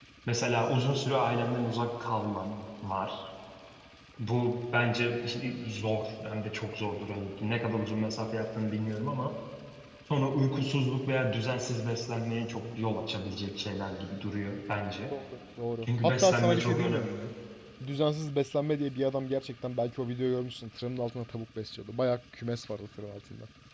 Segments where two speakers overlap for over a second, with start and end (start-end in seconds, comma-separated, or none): 15.8-17.1